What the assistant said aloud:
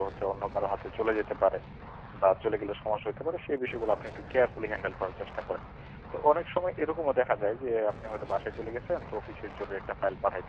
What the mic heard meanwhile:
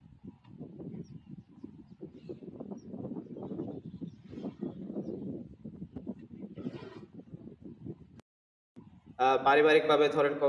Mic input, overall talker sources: user only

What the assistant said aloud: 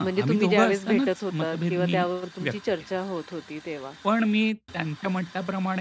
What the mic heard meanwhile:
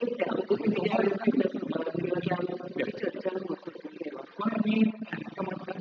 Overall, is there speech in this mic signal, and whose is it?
echo only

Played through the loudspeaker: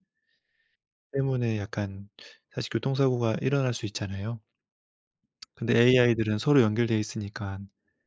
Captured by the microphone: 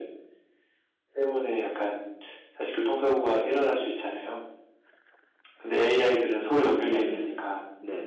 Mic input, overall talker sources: both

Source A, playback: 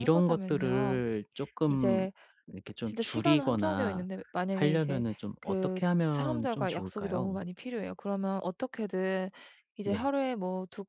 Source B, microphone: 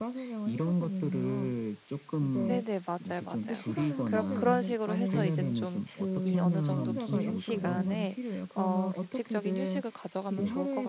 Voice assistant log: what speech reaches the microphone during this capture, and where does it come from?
both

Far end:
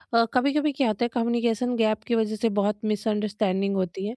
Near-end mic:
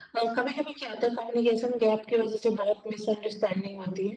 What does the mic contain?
echo only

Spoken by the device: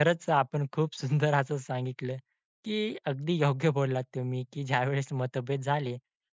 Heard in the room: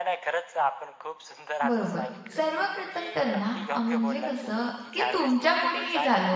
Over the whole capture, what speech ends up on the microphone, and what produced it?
both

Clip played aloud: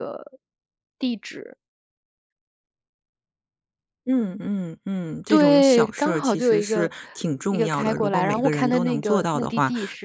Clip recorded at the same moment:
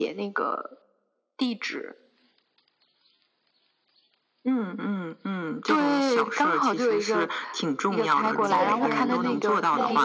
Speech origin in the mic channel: both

